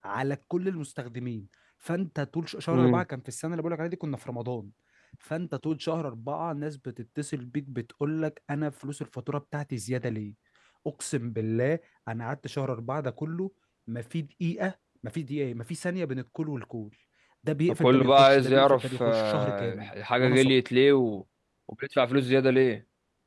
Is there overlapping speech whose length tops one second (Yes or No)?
Yes